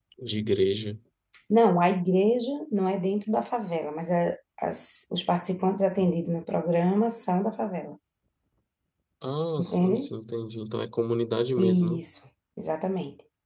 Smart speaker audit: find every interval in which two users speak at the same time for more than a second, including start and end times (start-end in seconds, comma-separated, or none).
none